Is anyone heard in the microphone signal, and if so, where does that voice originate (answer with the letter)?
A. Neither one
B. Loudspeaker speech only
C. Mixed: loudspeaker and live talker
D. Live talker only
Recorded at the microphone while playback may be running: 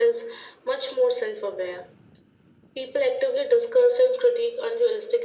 B